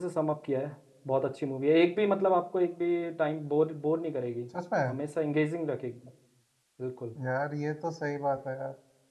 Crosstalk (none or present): none